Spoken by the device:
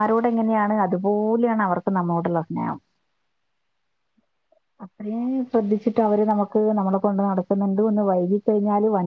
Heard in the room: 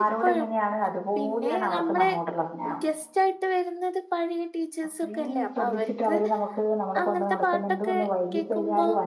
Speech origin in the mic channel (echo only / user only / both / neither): both